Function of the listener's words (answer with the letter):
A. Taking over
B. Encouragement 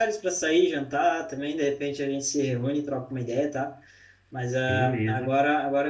B